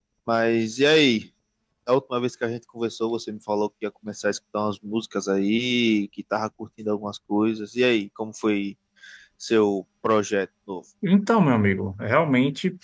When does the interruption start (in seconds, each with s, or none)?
none